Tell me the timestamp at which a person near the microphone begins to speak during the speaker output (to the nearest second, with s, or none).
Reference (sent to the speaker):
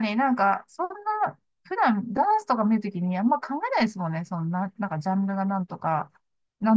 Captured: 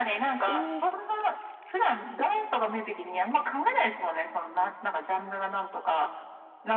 0 s